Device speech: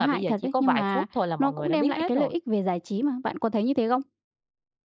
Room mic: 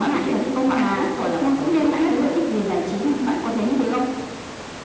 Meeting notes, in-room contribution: none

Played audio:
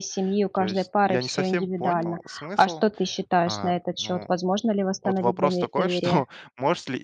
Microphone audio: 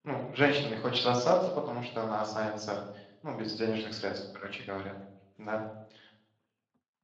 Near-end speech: present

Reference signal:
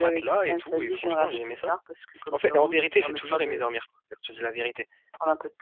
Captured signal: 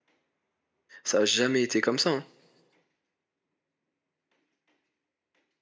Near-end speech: present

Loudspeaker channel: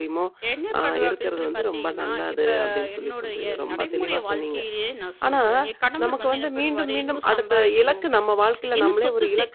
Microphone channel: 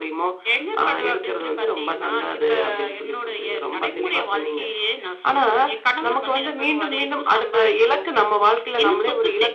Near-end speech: none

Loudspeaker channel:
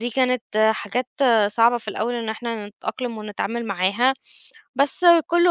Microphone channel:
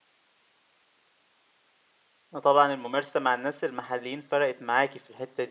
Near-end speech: present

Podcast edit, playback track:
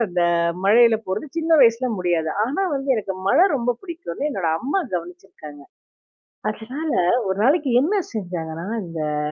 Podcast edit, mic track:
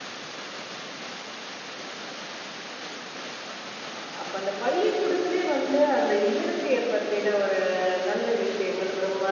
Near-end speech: present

